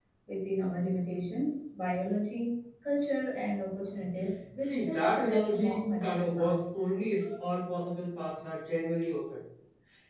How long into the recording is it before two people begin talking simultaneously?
4.6 s

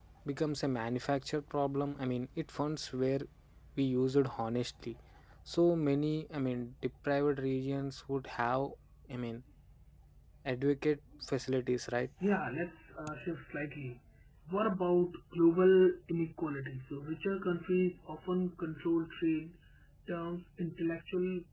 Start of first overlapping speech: none

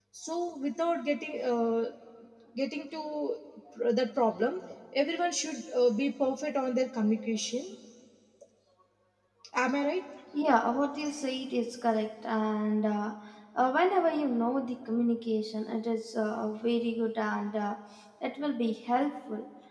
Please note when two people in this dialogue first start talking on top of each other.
none

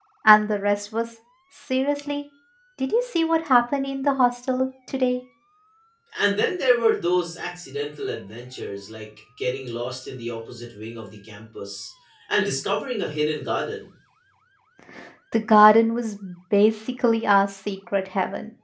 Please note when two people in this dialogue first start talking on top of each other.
none

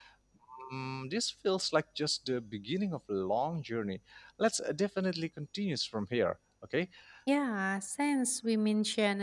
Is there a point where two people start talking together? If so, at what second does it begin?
none

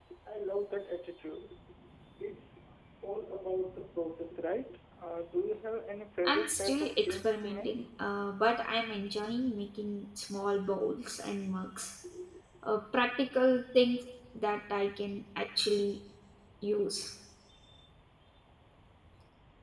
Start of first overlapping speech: 6.2 s

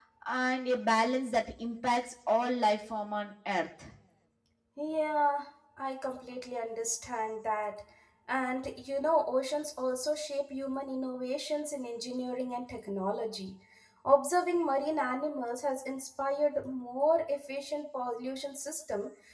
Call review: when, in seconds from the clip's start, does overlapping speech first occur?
none

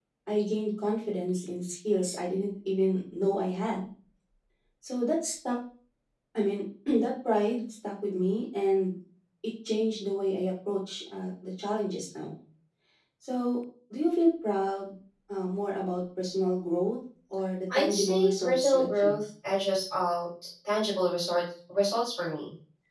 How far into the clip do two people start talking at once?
17.7 s

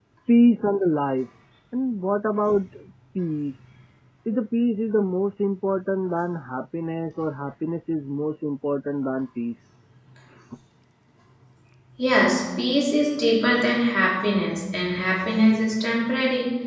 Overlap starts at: none

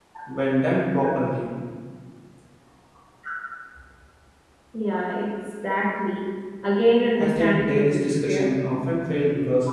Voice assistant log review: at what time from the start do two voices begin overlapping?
7.2 s

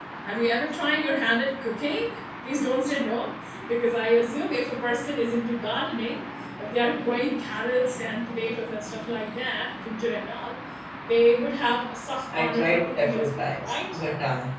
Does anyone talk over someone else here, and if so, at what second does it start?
12.3 s

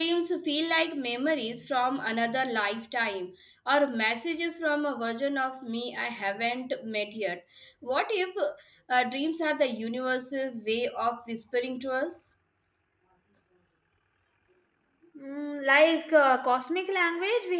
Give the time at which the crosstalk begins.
none

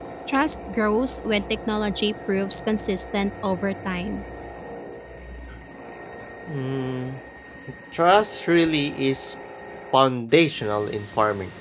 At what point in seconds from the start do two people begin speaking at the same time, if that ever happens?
none

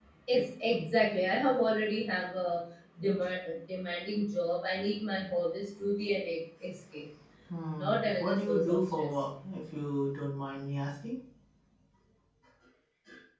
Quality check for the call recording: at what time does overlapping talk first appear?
7.8 s

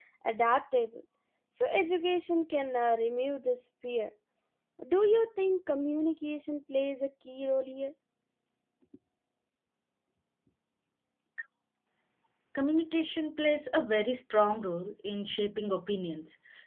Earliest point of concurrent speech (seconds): none

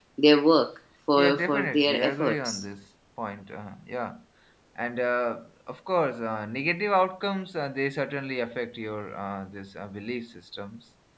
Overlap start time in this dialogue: 1.2 s

